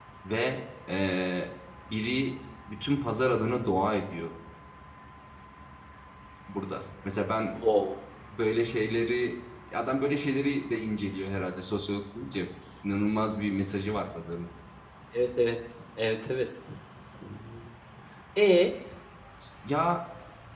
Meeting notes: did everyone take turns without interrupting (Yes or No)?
Yes